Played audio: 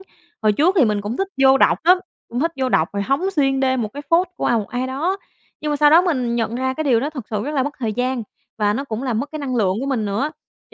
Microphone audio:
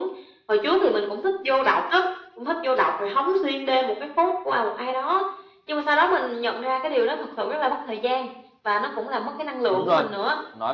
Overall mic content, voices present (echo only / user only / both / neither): both